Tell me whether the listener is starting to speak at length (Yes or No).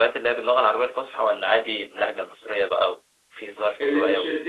Yes